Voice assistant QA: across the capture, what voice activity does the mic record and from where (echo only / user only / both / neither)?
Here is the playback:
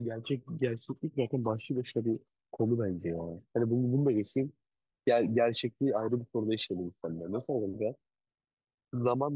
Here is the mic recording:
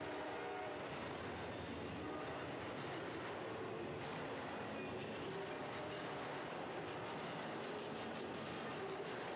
neither